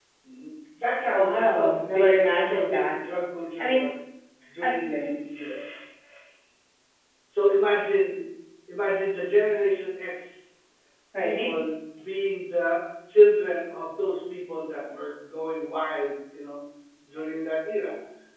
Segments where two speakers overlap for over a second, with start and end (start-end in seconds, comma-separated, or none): 1.1-2.9